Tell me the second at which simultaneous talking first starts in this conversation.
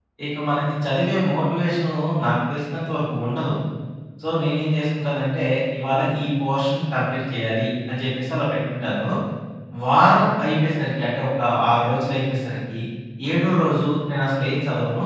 none

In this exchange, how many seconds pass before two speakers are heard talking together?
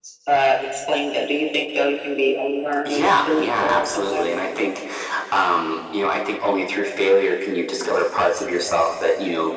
3 s

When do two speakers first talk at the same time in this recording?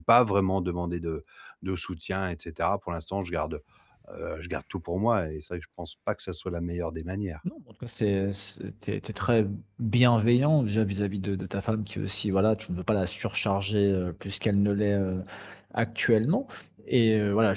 none

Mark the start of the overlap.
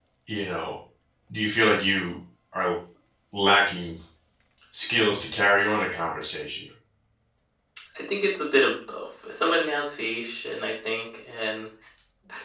none

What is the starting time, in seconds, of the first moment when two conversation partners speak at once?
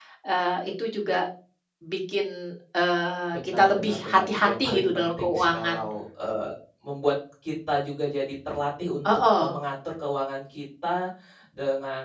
3 s

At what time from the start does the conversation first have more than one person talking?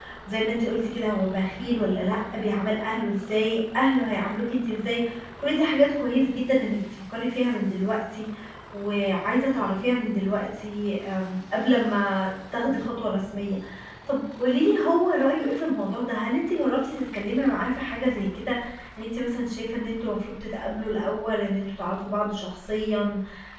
none

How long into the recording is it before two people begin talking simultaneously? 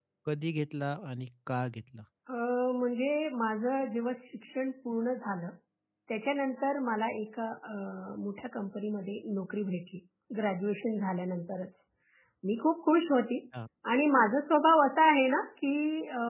none

